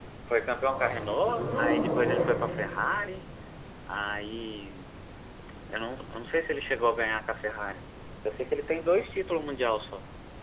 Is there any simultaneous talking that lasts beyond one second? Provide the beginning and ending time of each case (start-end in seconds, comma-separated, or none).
0.7-2.3